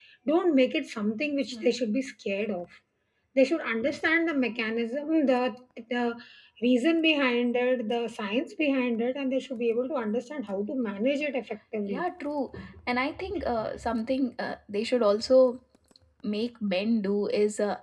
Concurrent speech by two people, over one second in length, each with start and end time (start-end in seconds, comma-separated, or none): none